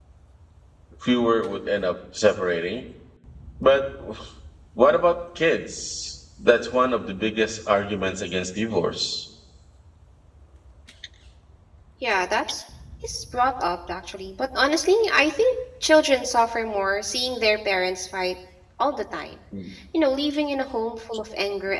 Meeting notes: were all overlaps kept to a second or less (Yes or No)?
Yes